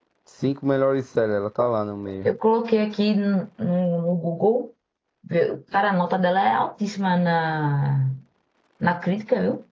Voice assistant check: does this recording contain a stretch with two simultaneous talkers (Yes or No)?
No